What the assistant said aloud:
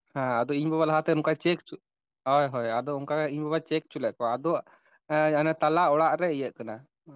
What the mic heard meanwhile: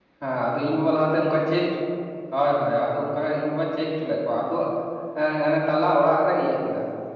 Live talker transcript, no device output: none

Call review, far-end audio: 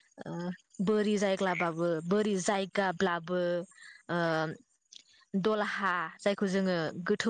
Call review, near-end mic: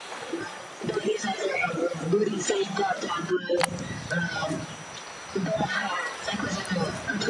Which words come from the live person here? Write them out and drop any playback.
none

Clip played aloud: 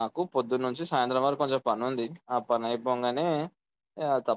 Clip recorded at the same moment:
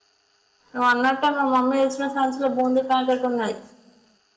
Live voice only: నువ్వు అన్నట్టే మా మమ్మీ తెచ్చిన సంచిలో బూందీ ప్యాకెట్ ఉన్నది.

